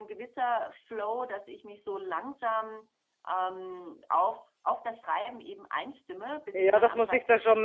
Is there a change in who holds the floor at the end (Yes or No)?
Yes